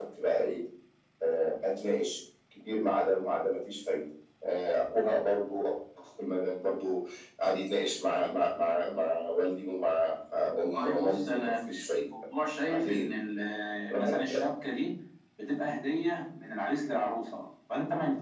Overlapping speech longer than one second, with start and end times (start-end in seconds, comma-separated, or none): 10.7-12.0